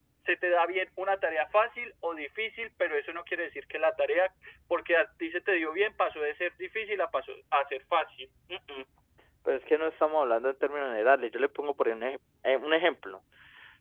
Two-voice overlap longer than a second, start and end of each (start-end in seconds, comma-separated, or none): none